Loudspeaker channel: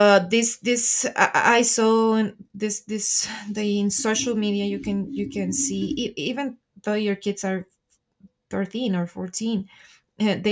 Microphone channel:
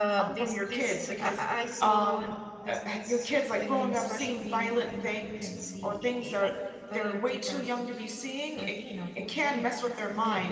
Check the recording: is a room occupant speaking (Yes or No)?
Yes